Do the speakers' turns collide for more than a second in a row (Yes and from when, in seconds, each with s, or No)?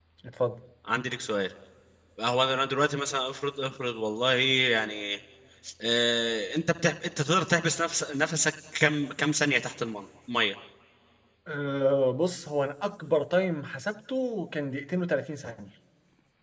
No